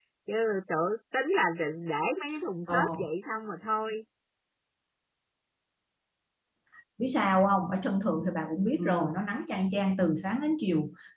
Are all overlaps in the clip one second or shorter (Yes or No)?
Yes